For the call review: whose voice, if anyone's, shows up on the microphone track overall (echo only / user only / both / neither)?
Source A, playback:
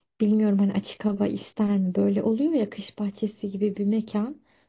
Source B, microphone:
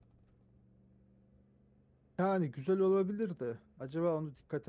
user only